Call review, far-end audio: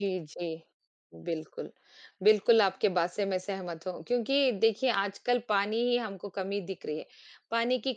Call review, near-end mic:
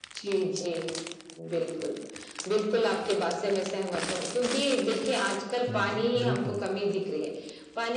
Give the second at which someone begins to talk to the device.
5.7 s

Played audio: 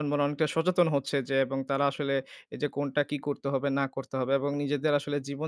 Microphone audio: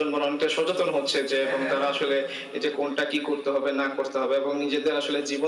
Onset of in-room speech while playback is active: 1.4 s

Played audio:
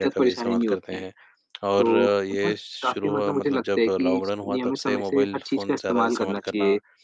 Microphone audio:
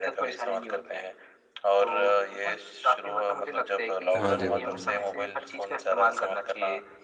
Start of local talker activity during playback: 4.1 s

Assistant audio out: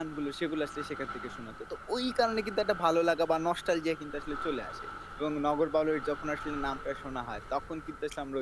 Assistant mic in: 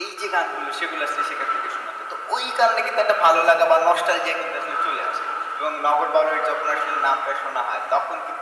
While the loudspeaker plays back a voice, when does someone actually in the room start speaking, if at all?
none

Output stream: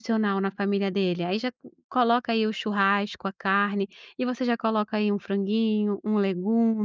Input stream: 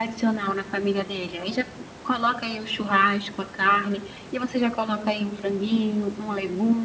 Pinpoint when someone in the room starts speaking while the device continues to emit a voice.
none

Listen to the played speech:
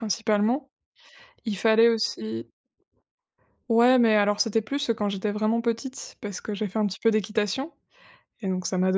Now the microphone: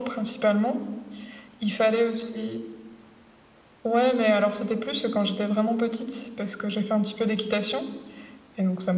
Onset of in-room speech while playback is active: none

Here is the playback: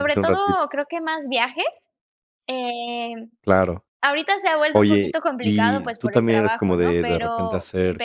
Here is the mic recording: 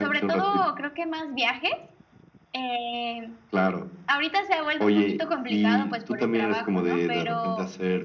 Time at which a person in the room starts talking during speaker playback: none

